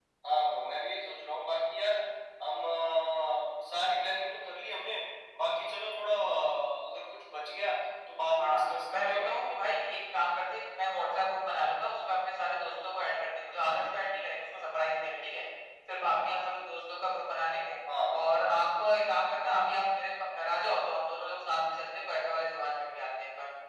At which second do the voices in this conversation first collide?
8 s

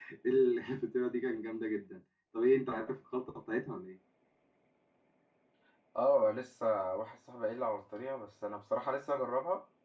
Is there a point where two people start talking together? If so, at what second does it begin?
none

